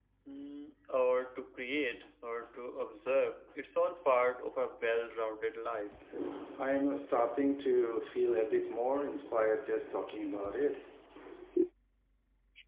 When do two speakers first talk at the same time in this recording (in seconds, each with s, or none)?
none